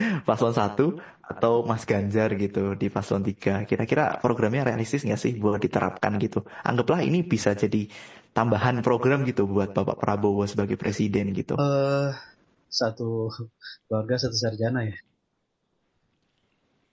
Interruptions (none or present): none